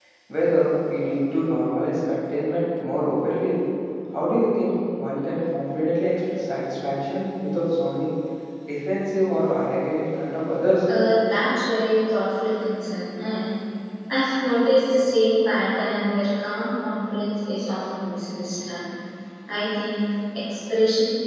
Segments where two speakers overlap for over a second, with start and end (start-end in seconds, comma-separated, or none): none